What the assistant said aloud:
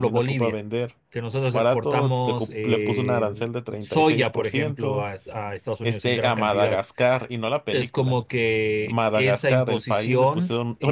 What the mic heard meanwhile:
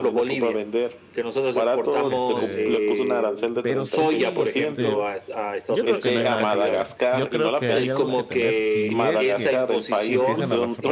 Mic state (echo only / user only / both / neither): both